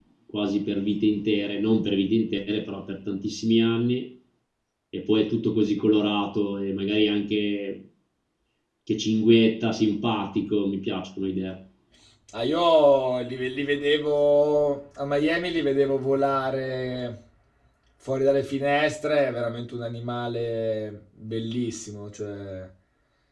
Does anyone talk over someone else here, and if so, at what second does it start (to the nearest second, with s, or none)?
none